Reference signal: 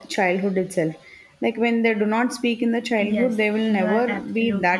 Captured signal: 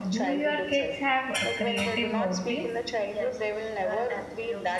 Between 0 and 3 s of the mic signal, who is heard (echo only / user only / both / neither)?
both